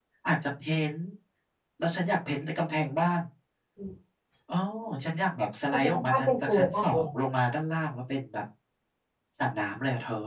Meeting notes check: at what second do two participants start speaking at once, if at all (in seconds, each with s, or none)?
5.7 s